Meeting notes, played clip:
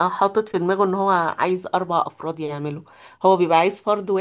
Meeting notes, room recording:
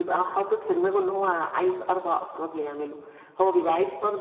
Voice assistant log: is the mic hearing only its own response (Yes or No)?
Yes